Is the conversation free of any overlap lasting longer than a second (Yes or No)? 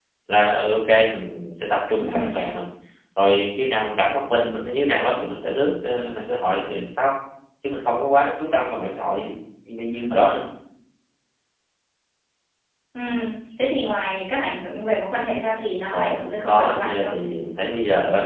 No